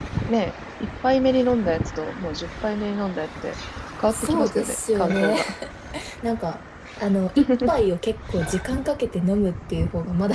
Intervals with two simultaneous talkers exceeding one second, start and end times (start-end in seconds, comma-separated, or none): 4.1-5.4